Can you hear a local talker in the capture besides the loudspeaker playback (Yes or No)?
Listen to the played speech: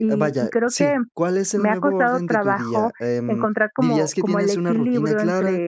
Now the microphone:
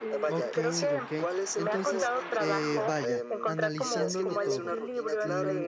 Yes